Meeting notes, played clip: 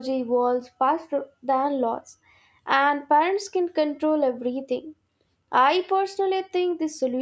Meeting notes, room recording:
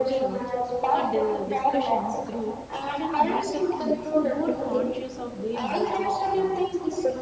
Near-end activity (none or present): present